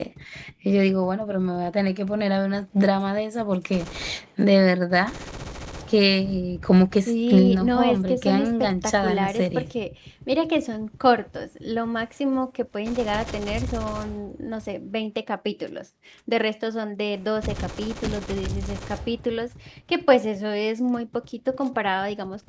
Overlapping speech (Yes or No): Yes